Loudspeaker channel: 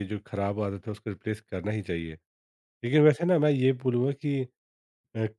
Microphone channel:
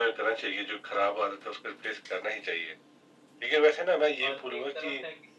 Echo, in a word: present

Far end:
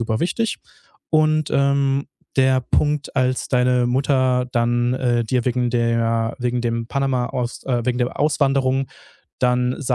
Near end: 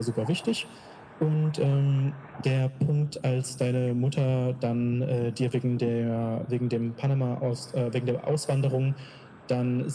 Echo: present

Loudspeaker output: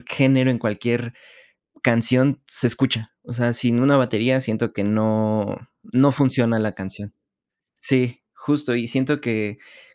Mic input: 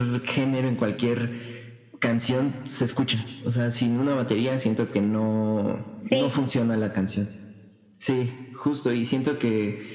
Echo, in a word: present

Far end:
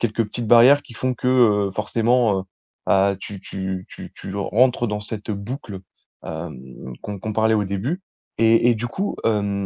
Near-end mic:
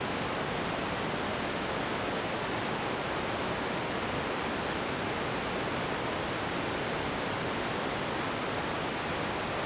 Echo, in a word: none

